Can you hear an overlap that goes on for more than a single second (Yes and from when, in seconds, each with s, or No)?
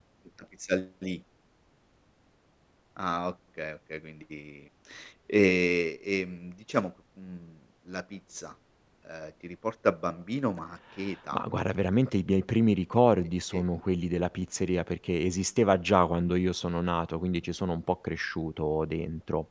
No